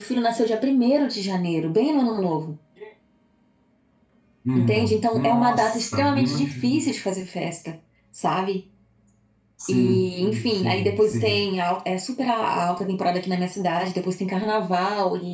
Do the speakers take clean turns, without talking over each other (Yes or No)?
No